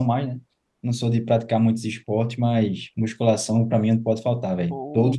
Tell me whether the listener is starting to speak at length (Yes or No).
Yes